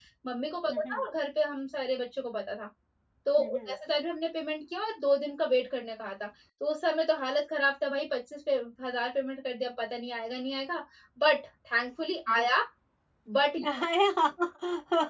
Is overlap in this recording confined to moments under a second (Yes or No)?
Yes